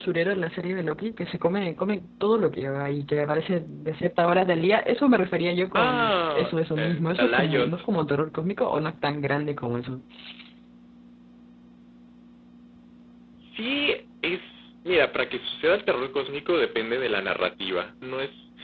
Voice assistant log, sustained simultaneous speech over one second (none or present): present